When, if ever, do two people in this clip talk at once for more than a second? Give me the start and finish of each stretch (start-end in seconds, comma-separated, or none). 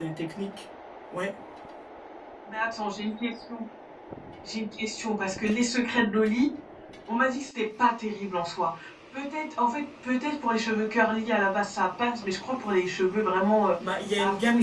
none